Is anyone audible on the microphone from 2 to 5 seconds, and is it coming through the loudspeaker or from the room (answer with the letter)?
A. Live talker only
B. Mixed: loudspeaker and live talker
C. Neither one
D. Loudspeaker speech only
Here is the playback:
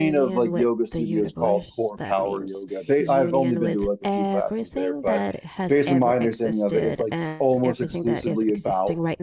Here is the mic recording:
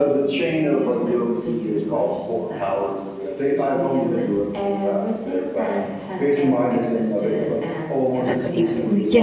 D